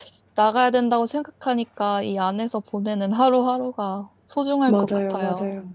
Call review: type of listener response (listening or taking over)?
taking over